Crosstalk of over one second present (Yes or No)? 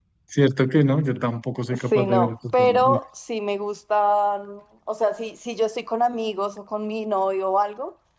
Yes